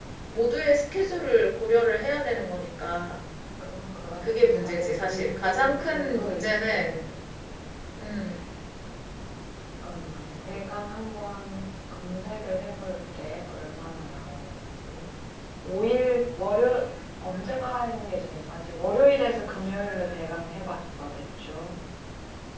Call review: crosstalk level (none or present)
present